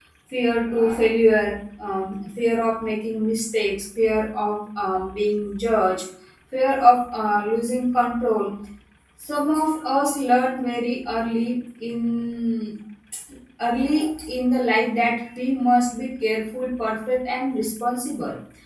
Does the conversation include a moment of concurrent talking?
No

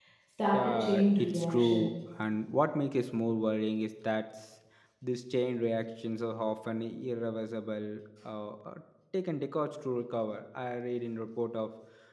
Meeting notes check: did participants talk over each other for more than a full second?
Yes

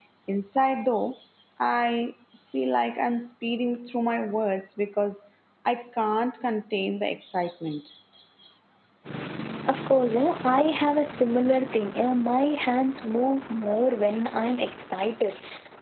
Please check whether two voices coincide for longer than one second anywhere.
No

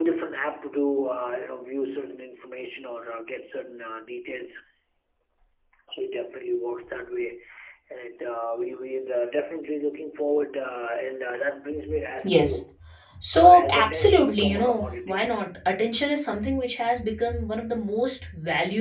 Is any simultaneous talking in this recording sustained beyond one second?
Yes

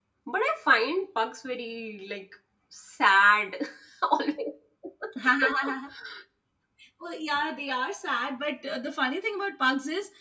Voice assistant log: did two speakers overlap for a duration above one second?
No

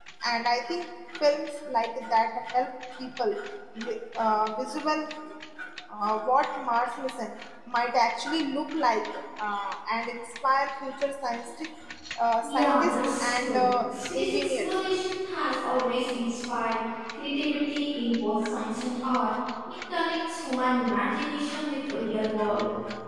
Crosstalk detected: Yes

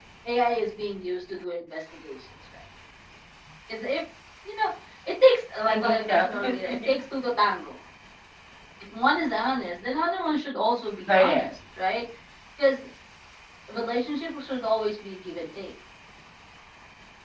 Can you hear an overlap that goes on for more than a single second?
Yes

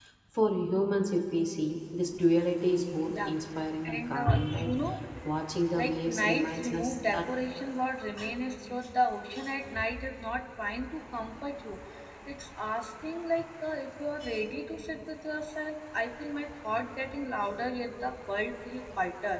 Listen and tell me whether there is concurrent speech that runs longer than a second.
Yes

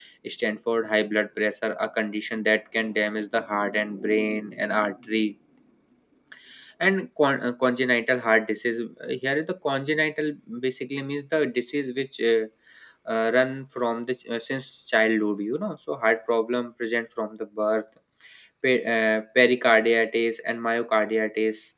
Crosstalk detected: No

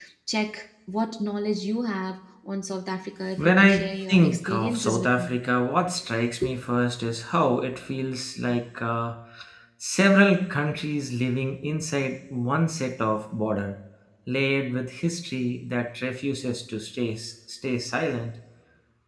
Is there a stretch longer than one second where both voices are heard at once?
Yes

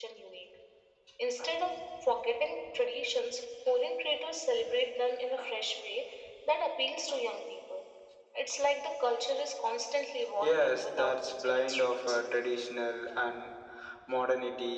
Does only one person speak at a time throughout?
No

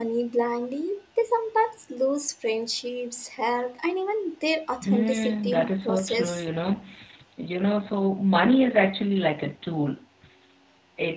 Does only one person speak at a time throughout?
No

